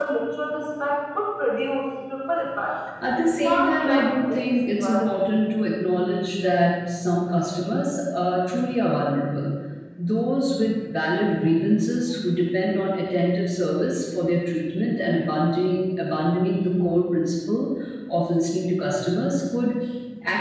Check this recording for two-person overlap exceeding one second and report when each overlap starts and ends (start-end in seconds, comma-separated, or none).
3.4-5.2